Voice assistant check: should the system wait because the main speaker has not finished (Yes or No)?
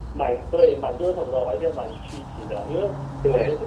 Yes